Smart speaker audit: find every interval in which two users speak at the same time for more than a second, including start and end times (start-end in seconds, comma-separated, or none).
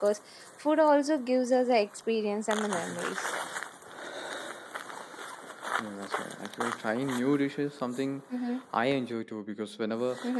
none